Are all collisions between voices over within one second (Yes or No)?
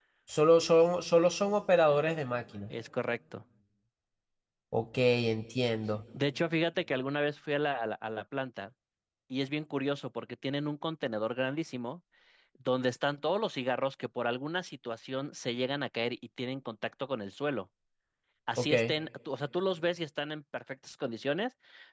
Yes